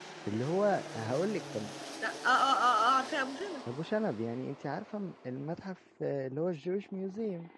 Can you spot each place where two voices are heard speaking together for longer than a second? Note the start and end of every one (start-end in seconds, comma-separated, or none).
none